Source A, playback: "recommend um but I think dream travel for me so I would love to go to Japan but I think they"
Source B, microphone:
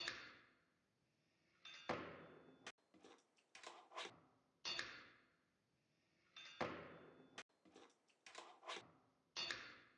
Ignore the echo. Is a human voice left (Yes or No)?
No